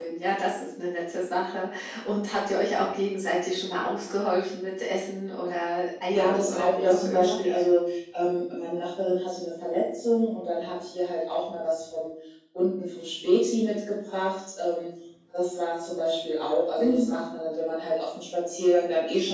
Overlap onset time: 6 s

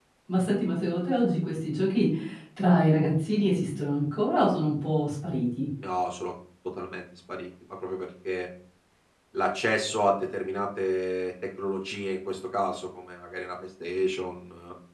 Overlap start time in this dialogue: none

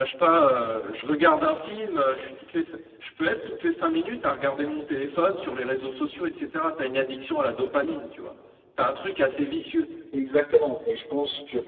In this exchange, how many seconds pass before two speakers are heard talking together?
none

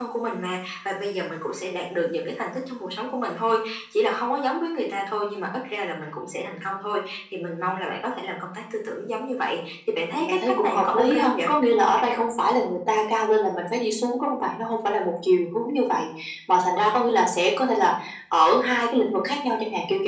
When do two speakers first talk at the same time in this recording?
10 s

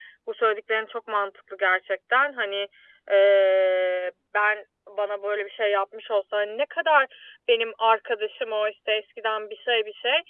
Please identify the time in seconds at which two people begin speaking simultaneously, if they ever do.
none

